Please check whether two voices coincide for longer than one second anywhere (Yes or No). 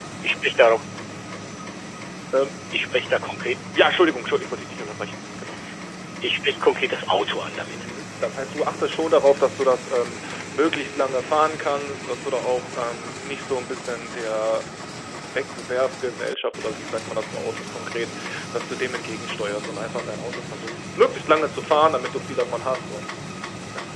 No